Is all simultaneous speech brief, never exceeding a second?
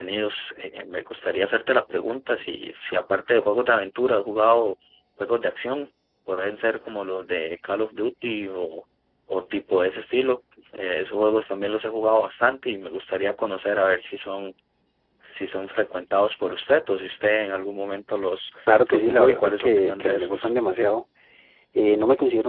No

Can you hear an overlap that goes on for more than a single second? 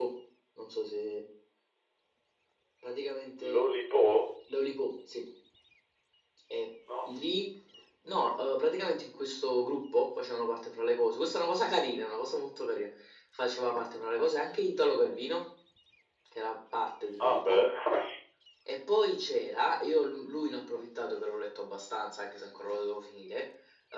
No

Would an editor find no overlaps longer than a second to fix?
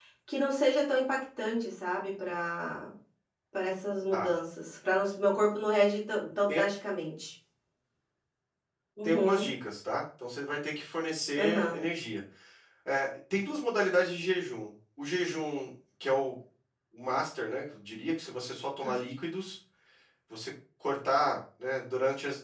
Yes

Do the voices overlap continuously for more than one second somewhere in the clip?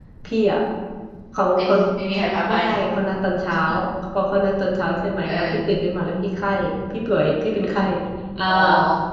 No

